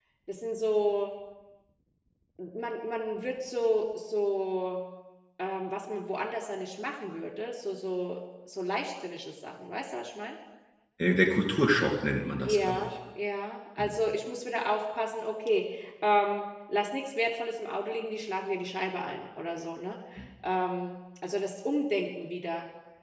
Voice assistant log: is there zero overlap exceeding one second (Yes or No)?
Yes